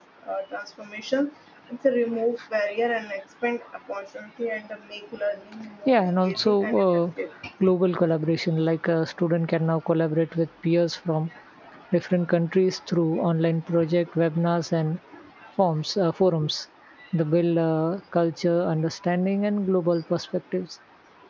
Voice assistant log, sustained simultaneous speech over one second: present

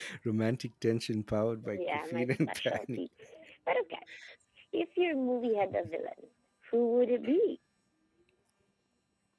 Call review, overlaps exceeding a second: present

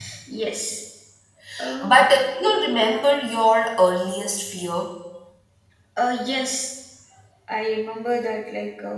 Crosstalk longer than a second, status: none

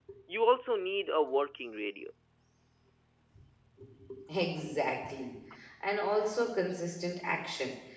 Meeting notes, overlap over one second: none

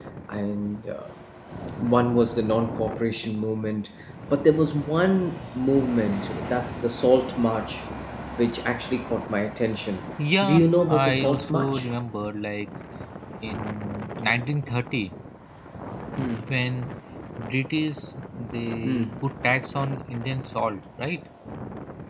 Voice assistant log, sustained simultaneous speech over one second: present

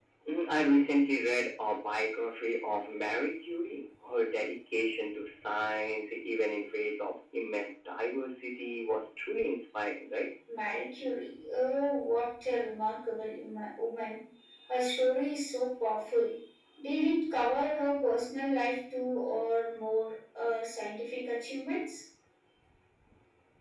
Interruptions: none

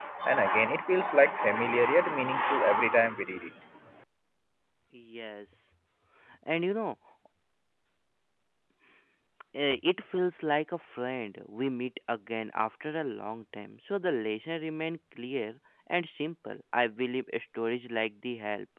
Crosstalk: none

